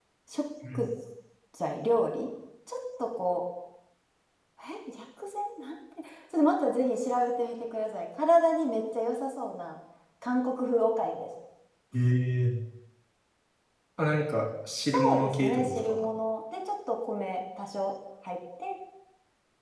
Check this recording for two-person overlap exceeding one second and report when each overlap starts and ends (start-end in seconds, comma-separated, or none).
14.8-16.1